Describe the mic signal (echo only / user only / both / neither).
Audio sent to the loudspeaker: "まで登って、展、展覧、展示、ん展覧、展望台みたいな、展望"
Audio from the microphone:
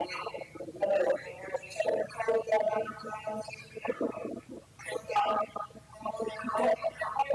echo only